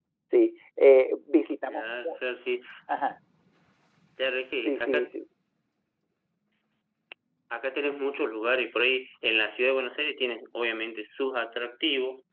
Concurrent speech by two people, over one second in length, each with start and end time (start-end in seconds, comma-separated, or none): none